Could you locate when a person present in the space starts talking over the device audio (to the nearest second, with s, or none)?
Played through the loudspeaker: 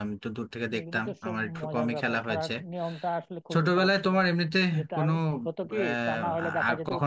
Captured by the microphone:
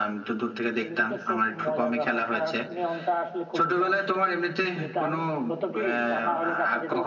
none